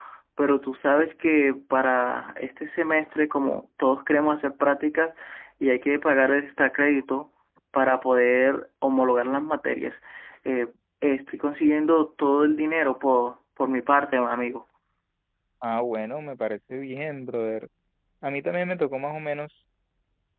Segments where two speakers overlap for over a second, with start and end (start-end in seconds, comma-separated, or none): none